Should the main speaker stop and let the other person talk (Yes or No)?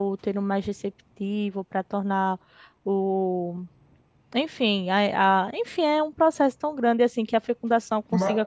No